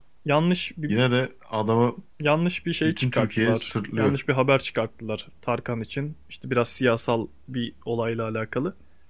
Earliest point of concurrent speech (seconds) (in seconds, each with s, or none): 2.8 s